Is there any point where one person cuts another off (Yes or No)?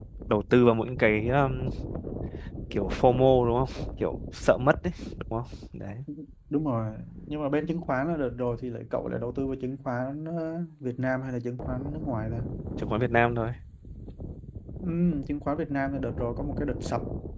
No